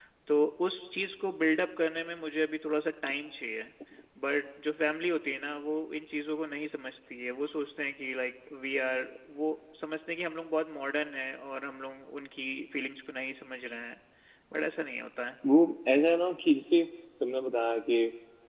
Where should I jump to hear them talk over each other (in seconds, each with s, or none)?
none